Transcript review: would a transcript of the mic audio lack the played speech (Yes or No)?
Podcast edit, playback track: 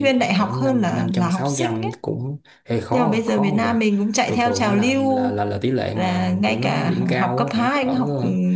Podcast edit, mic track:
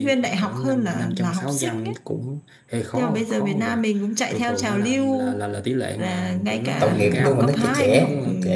No